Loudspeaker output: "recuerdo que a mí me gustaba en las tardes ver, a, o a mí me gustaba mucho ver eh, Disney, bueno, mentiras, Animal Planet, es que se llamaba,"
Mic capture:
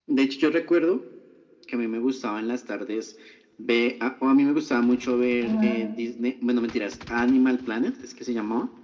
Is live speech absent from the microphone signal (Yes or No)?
No